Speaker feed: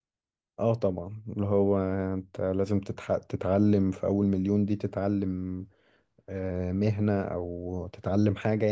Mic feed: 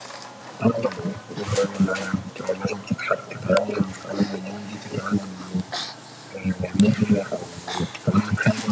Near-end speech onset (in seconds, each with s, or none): none